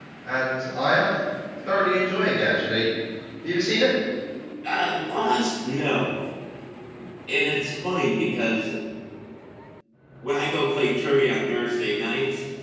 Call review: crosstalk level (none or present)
none